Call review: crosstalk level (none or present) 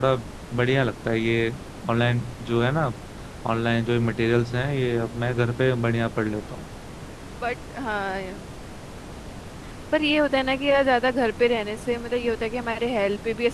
none